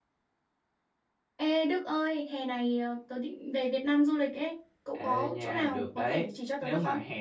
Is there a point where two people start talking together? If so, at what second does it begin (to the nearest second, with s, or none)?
5 s